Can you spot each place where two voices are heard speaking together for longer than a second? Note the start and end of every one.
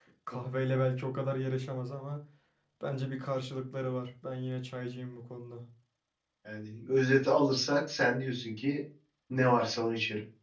none

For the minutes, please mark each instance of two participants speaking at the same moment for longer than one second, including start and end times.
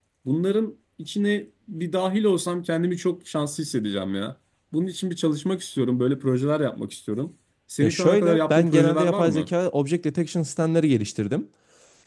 7.8-9.5

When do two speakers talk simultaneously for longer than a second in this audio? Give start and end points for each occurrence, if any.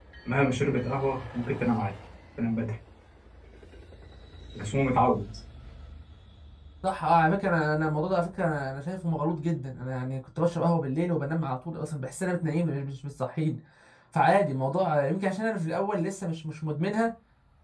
none

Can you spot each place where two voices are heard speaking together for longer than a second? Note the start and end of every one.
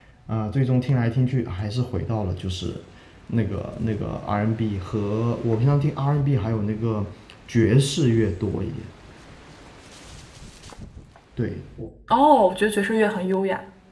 none

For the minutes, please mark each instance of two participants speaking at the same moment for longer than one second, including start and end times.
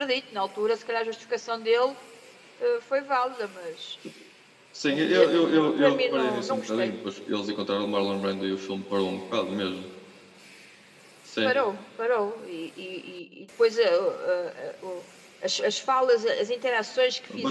4.9-6.9

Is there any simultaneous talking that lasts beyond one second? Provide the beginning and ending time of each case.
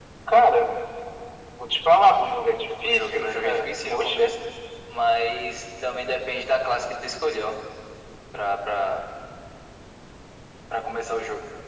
2.8-4.3

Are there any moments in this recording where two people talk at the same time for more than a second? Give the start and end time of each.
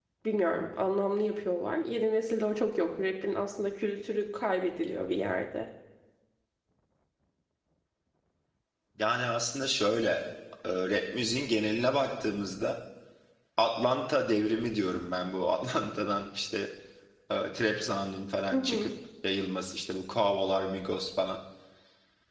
none

